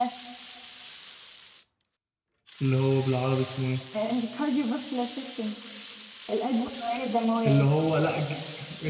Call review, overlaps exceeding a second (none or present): none